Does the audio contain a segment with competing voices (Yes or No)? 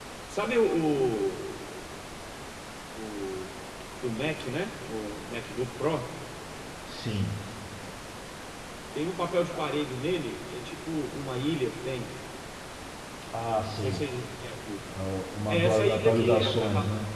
Yes